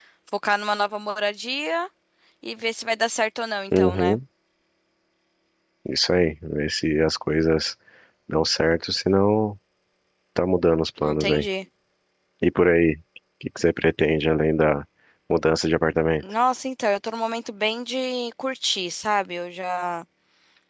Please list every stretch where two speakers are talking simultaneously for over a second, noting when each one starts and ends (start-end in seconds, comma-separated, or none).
none